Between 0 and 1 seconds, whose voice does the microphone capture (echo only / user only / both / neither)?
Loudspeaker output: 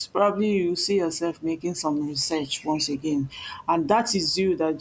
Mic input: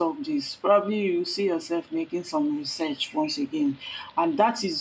echo only